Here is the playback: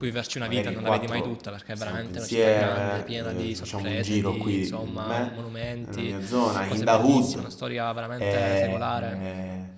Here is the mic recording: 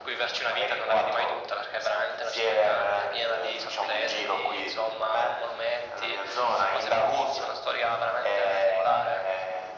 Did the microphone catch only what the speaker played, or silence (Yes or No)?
Yes